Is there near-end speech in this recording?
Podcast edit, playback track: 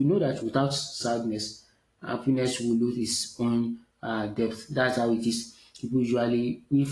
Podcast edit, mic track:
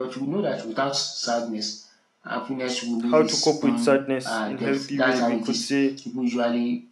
Yes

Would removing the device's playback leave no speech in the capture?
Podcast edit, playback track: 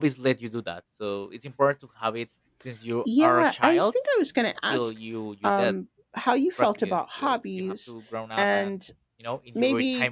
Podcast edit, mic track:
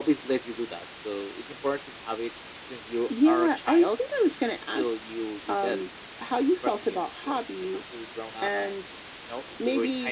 Yes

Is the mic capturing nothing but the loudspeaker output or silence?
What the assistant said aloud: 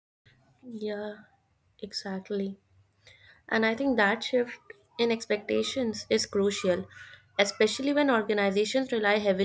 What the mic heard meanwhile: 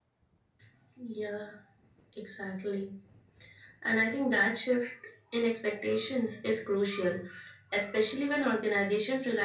Yes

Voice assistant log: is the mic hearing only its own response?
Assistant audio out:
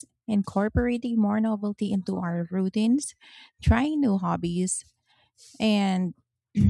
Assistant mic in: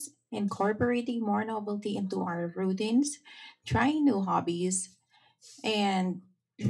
Yes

